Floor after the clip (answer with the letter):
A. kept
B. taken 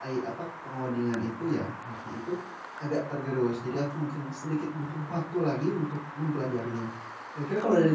A